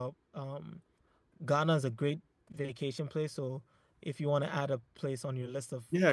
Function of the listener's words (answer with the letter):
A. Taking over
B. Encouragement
A